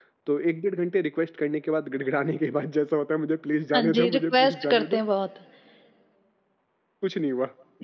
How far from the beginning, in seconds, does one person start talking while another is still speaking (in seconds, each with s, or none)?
3.7 s